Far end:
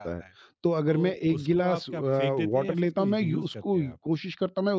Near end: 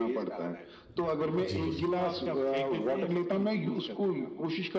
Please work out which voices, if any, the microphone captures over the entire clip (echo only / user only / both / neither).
both